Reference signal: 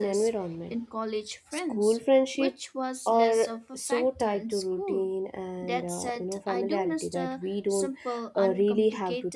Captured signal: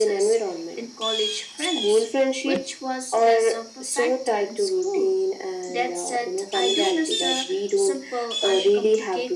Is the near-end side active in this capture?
No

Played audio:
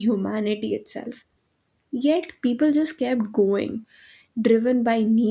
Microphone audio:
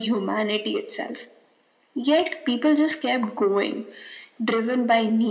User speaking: No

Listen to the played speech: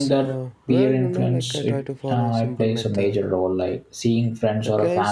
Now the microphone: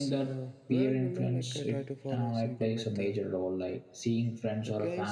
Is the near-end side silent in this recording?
Yes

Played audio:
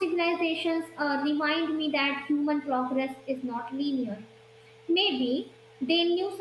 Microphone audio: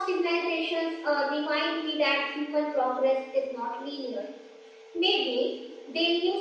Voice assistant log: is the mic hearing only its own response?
Yes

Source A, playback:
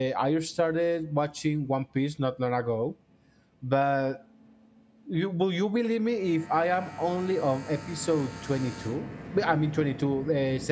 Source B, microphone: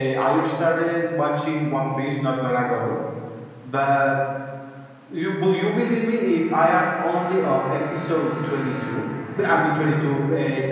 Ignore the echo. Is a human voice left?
No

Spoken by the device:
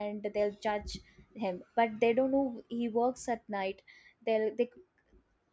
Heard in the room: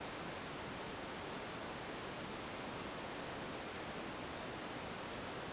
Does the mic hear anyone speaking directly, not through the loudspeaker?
No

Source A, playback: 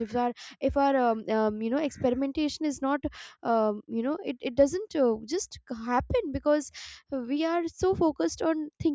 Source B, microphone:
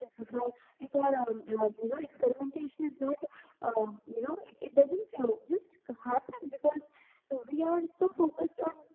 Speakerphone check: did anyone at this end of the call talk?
No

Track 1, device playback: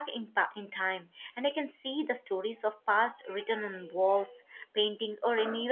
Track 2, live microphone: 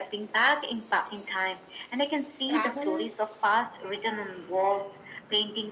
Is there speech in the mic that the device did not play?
Yes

